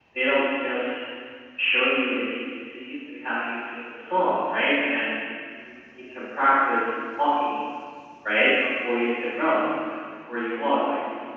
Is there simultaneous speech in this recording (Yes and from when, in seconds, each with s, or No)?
No